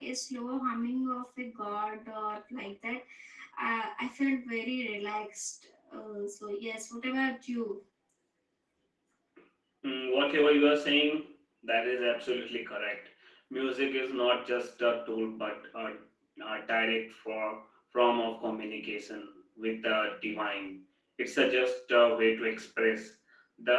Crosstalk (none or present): none